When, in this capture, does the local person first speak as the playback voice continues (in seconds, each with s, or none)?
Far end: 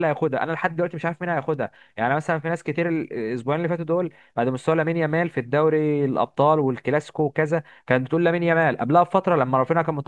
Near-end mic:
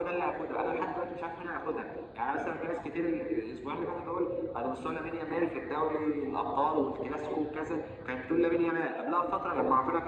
none